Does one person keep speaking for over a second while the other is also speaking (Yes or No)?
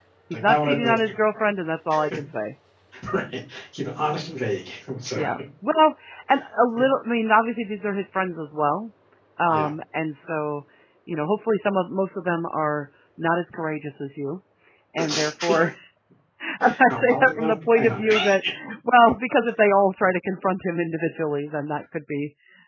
Yes